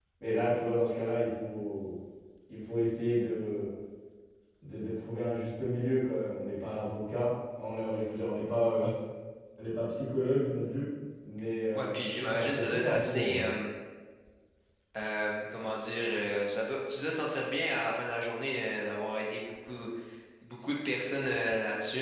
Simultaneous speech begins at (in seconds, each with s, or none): 11.7 s